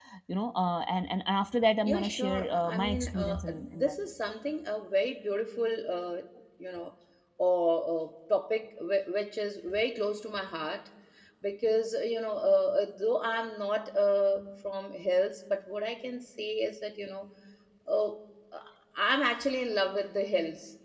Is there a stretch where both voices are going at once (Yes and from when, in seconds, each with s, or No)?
Yes, from 1.8 s